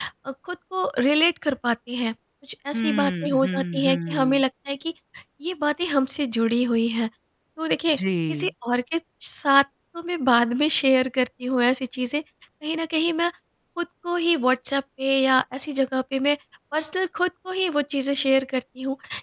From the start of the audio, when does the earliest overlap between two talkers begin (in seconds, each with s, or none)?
2.7 s